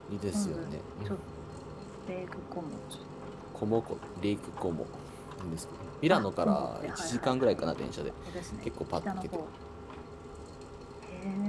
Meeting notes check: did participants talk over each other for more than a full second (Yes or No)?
Yes